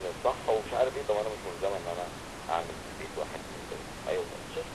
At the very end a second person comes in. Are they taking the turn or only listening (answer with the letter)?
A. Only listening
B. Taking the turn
B